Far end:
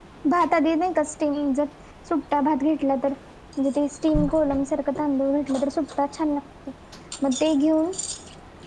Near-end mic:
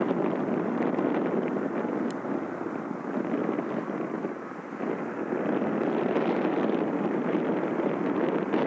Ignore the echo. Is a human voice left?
No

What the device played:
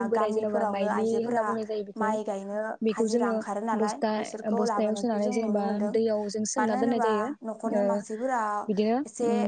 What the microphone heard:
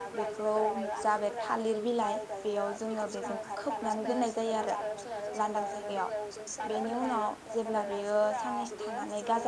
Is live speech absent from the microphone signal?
No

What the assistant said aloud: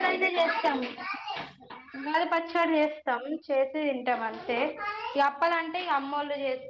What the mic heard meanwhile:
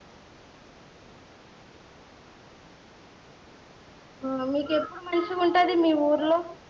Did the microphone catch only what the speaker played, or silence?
No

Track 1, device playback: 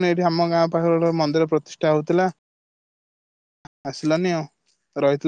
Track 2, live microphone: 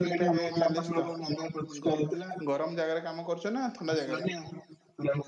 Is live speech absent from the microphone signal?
No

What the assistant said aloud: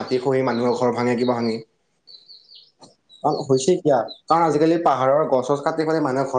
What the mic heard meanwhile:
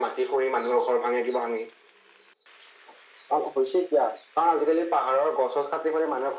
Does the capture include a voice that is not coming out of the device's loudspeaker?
No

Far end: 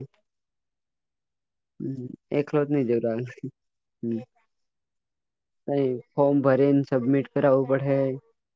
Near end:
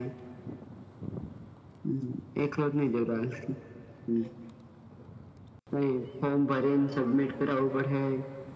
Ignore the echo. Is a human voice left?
No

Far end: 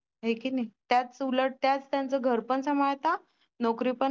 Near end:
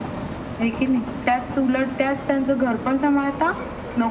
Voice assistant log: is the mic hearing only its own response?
Yes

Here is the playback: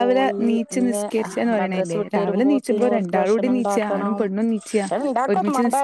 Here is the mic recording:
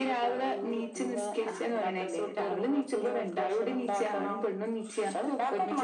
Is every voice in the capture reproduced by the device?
Yes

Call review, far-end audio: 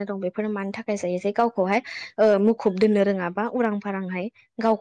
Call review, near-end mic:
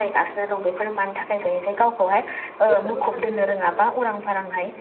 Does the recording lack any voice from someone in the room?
No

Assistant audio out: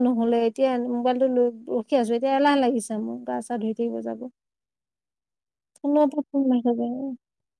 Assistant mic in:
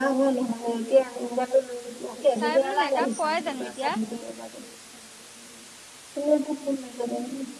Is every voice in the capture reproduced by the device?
No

